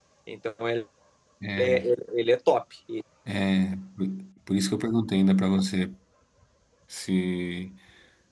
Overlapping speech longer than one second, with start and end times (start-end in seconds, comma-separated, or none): none